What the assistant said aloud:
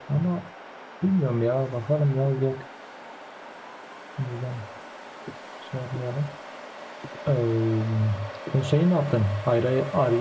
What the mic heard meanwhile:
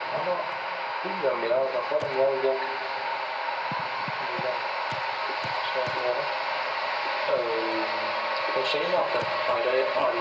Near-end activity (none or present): none